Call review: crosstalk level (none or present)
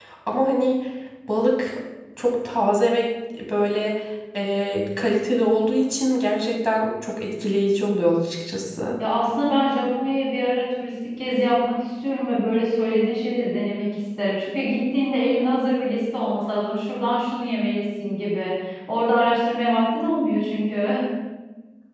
none